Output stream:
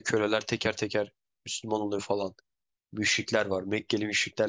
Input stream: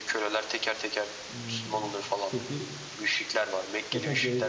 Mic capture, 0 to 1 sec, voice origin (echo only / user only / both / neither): echo only